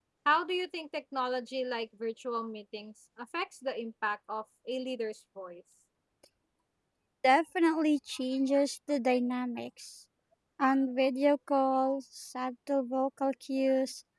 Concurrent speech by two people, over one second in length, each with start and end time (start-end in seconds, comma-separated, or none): none